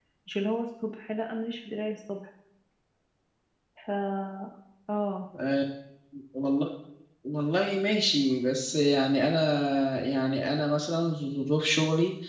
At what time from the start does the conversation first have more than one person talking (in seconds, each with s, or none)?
none